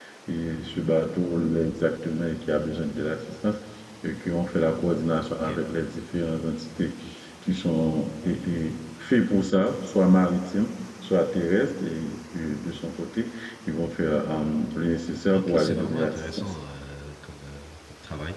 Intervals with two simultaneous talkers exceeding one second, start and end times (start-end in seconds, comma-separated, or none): 15.3-16.5